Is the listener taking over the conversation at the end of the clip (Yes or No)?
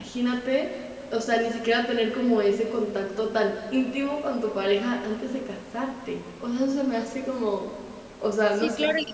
Yes